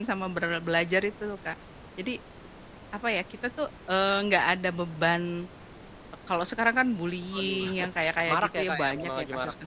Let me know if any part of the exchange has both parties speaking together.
Yes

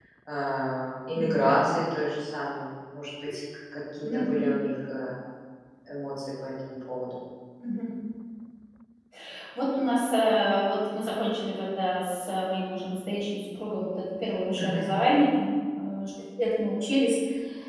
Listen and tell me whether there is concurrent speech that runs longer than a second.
No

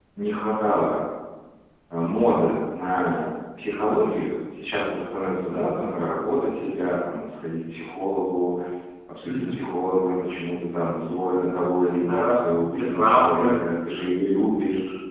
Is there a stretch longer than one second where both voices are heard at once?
Yes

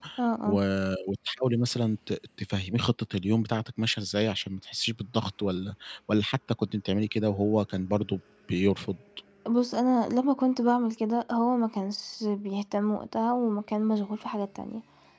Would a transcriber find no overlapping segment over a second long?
Yes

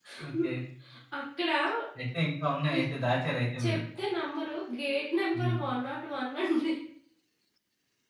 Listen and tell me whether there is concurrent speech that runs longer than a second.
No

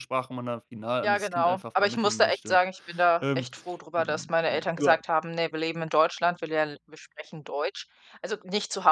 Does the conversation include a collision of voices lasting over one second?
Yes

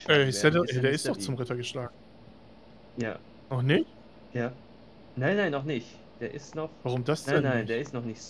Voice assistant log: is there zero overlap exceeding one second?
No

